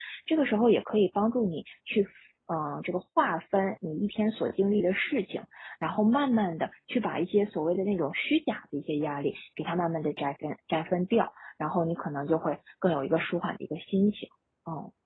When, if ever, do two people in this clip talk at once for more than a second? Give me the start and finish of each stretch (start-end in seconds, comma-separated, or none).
none